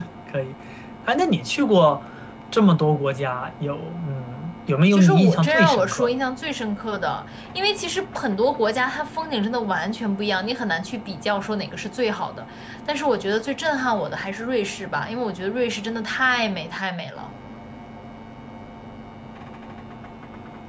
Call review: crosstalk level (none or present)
present